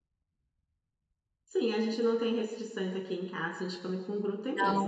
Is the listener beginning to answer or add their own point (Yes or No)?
Yes